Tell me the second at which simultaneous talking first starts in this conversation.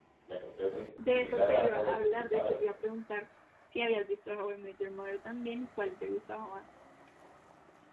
1.1 s

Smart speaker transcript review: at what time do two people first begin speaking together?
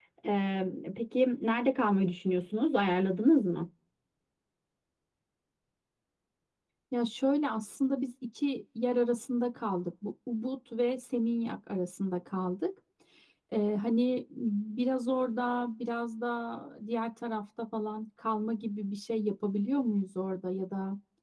none

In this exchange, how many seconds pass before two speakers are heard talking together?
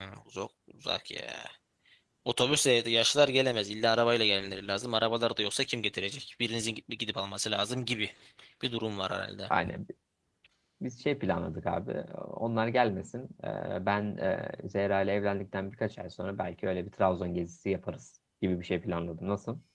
none

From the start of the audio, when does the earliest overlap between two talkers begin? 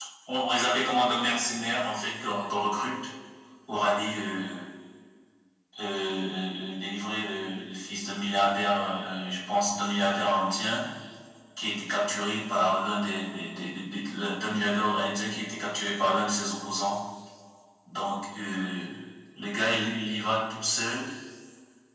none

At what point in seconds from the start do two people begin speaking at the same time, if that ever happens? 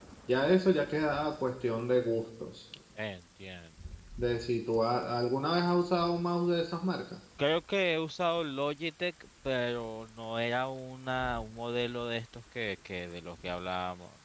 none

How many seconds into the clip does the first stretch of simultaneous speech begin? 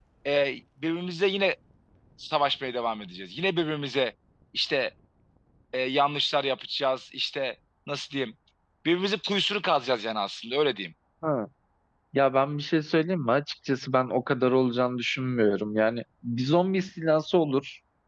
none

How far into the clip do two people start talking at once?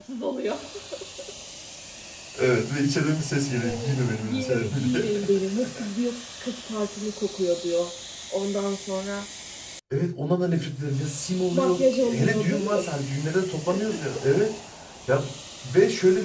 3.6 s

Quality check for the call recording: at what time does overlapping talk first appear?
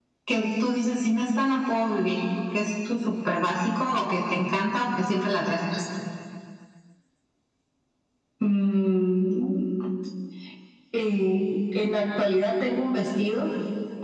none

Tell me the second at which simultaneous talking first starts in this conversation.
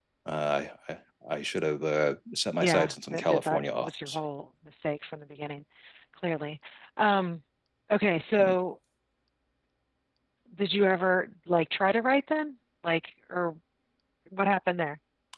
2.6 s

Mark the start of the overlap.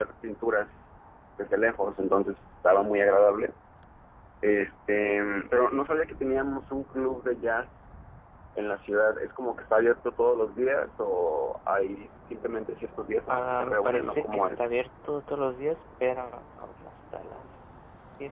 13.3 s

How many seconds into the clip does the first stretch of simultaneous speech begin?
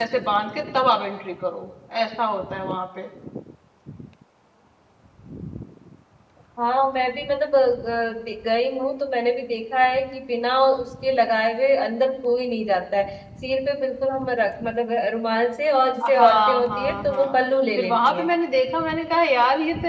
16.1 s

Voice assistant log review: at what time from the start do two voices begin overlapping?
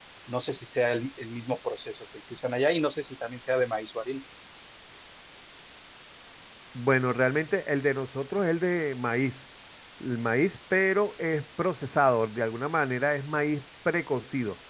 none

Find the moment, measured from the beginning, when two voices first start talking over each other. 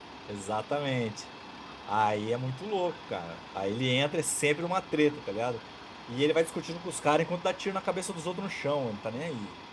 none

